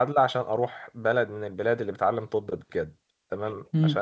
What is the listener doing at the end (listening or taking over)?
listening